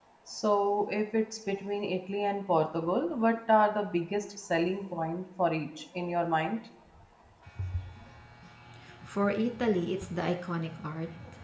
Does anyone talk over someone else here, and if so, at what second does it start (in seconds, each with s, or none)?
none